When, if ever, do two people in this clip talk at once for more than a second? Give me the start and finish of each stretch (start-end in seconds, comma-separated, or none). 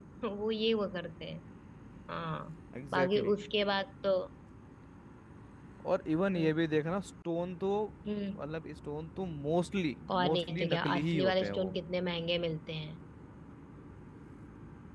10.2-11.7